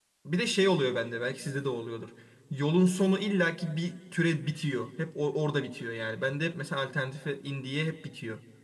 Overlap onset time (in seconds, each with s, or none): none